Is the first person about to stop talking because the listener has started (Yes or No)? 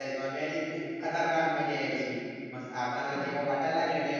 No